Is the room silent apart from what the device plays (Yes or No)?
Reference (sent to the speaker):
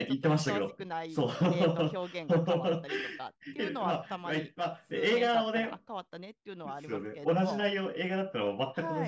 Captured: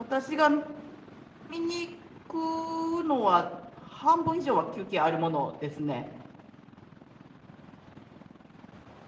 No